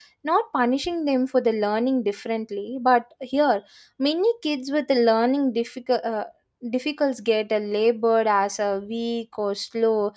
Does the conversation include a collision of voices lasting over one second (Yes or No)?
No